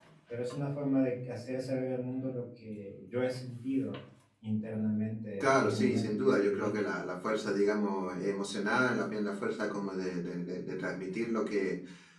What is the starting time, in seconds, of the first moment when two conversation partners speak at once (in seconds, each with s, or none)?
5.4 s